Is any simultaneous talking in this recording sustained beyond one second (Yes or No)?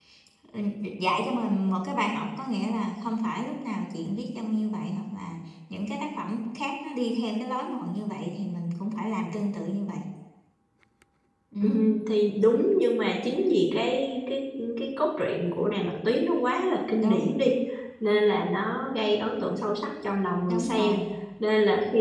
No